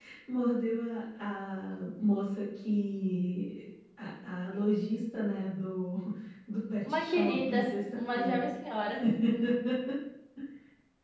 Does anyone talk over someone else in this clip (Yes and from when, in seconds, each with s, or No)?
Yes, from 6.9 s